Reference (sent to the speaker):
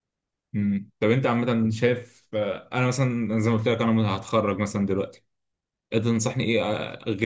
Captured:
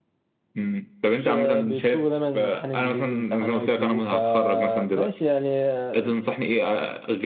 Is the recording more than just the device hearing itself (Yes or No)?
Yes